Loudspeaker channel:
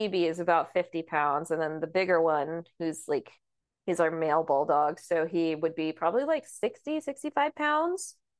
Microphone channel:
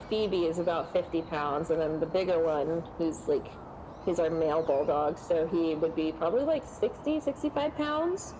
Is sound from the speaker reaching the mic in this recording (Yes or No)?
Yes